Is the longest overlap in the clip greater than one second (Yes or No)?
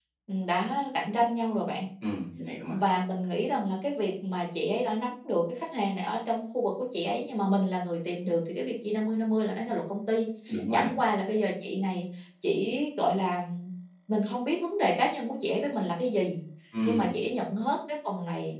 No